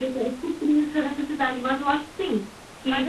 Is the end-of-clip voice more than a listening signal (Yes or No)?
Yes